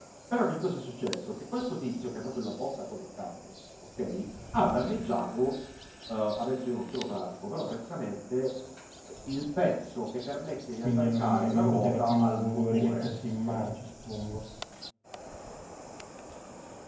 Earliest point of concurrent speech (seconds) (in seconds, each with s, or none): 10.8 s